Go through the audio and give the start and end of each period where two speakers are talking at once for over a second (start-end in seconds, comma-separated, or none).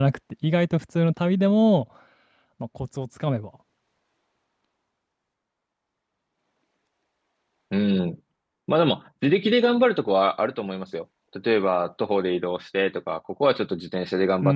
none